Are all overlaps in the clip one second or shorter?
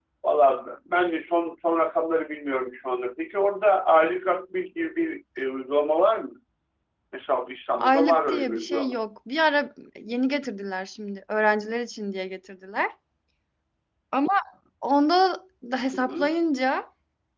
No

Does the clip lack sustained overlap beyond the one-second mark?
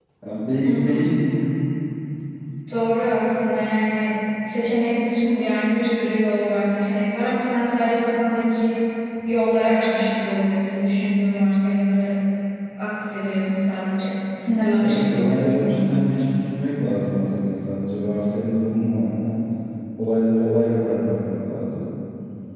No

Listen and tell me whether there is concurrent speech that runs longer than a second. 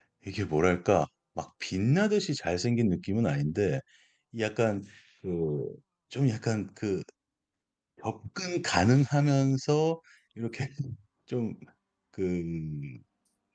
No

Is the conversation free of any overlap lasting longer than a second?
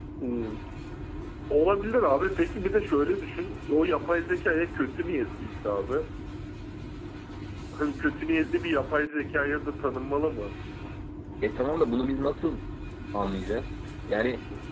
Yes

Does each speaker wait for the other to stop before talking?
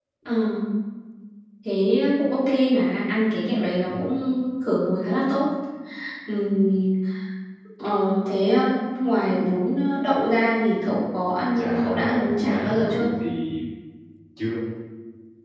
No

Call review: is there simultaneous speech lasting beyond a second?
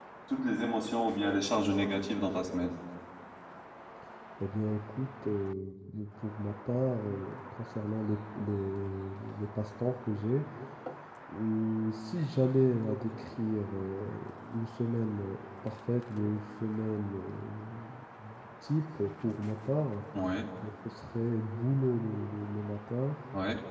No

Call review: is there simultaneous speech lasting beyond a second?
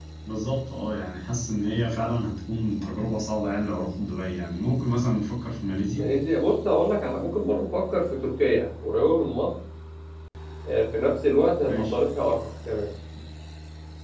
No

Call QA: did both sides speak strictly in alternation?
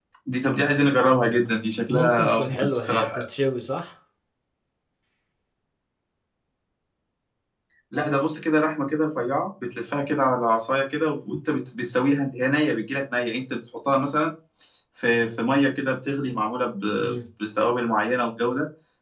No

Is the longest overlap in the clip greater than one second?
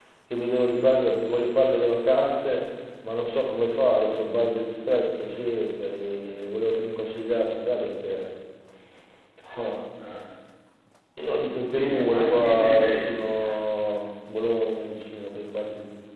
Yes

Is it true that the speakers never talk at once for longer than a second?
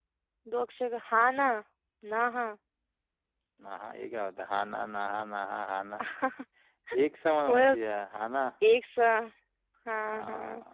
Yes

